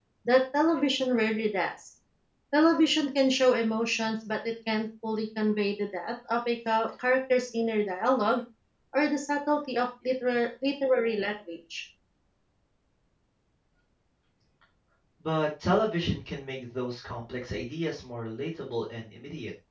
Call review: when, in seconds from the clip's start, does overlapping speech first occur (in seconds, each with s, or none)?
none